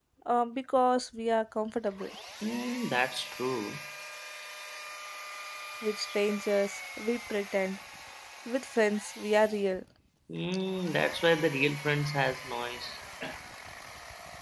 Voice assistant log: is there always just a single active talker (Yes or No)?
Yes